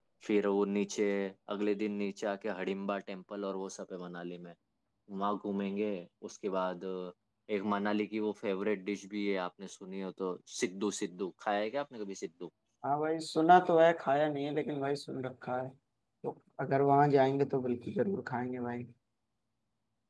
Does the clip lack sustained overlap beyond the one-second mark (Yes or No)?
Yes